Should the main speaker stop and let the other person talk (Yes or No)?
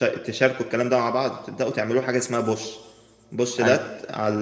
No